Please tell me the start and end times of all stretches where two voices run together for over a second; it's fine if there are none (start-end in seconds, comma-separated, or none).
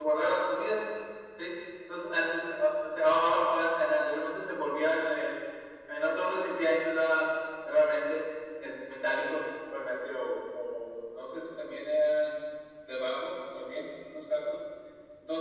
none